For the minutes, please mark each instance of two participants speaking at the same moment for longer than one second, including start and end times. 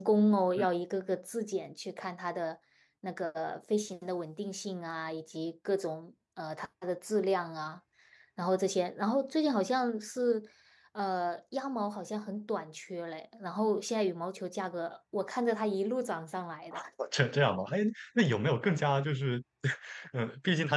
none

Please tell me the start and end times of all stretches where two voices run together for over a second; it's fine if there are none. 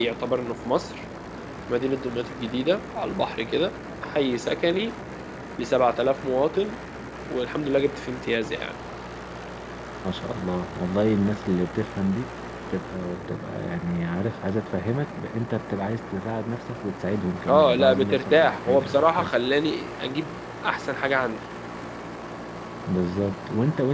17.5-19.3

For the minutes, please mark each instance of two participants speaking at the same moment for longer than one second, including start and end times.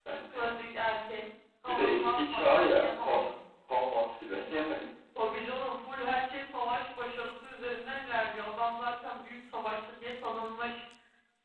1.6-3.2

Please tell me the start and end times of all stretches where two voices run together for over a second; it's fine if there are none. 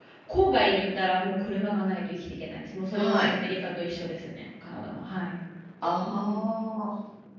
none

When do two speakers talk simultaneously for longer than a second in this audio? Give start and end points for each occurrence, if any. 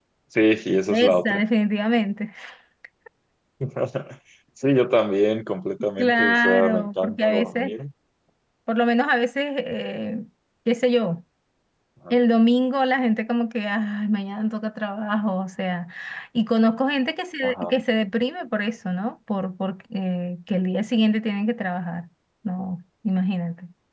6.0-7.7

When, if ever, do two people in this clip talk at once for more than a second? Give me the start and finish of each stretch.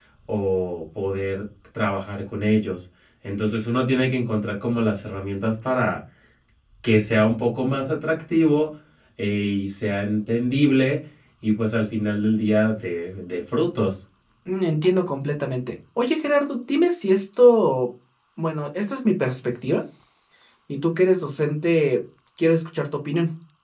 none

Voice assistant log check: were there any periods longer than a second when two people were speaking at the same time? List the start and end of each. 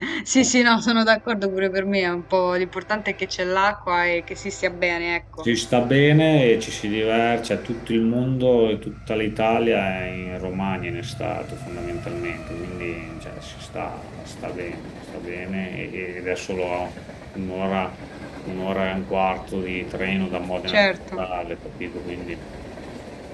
none

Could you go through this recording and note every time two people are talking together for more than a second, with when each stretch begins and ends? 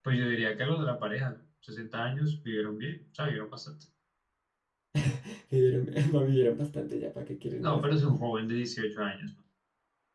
none

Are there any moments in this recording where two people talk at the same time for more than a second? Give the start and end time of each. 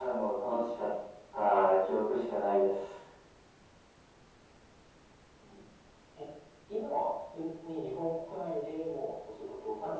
none

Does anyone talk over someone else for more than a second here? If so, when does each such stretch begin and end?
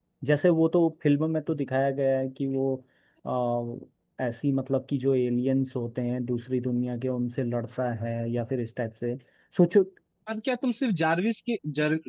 none

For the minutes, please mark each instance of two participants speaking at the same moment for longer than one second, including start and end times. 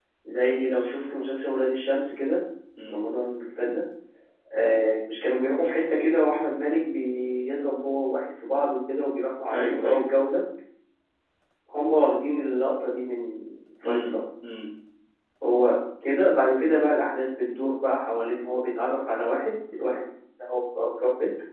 none

